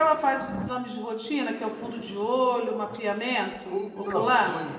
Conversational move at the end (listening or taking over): taking over